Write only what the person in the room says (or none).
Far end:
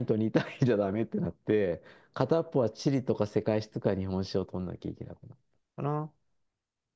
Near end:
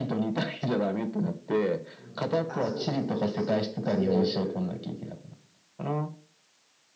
うん。あ、そうそうそうそう。それは言えてる。うん。